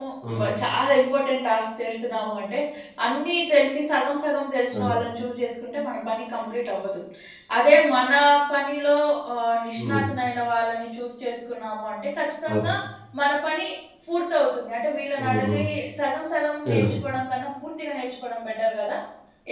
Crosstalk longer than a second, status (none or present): none